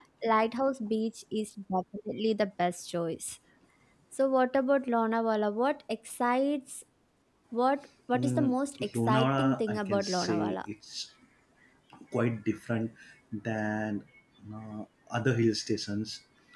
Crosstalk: present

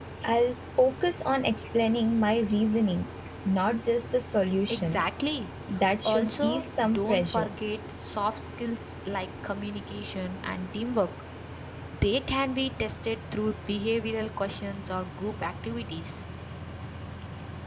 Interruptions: present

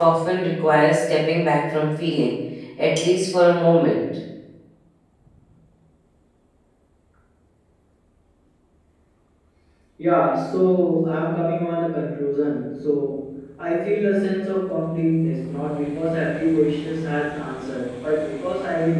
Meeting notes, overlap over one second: none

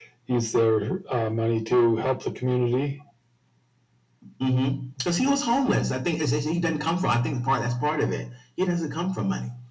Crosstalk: none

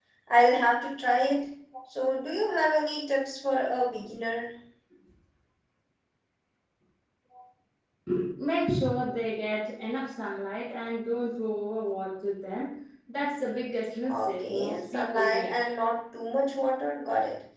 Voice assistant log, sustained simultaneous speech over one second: present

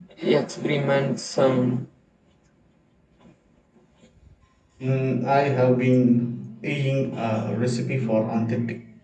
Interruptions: none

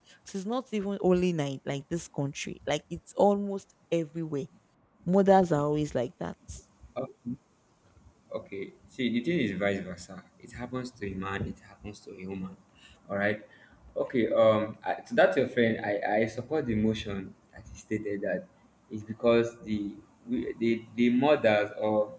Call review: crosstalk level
none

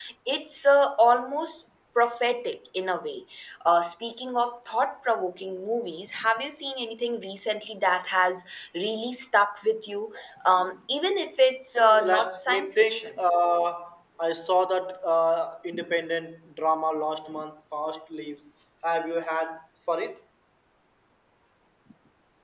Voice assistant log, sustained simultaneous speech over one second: present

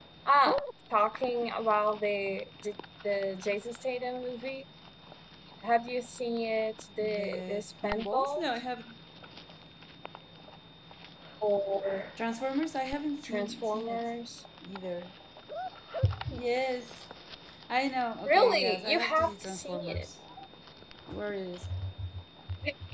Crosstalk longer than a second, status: present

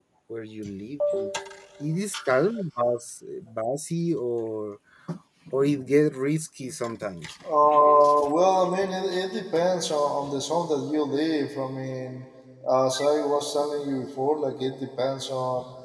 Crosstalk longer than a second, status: none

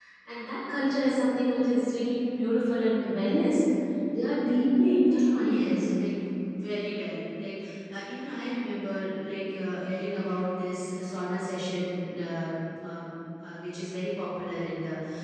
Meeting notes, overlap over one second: none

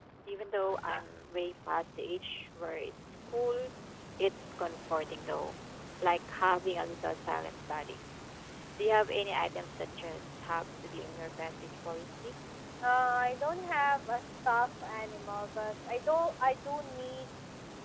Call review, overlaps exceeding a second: none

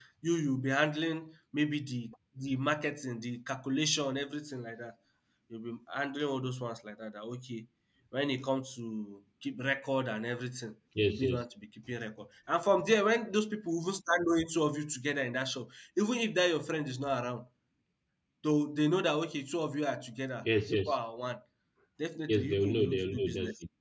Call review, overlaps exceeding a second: present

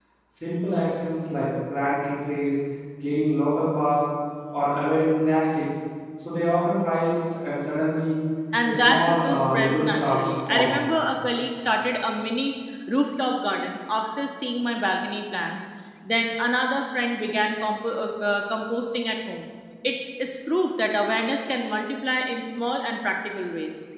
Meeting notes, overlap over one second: present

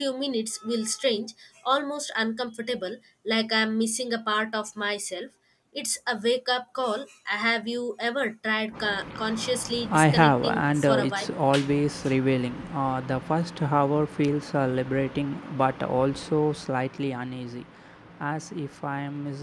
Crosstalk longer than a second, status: present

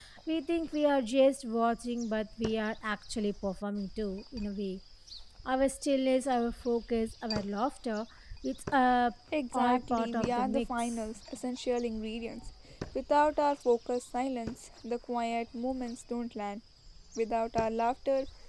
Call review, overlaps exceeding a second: present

